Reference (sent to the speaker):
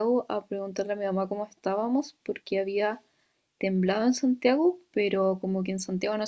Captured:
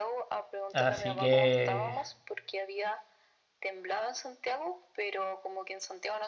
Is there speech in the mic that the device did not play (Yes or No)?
Yes